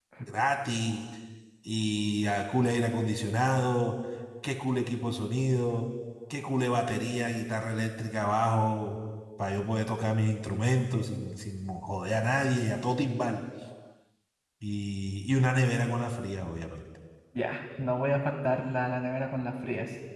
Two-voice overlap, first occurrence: none

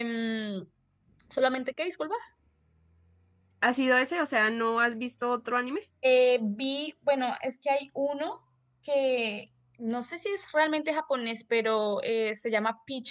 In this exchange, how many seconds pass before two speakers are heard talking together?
none

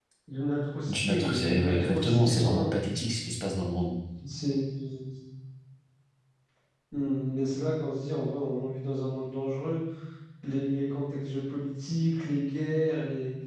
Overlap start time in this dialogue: 0.9 s

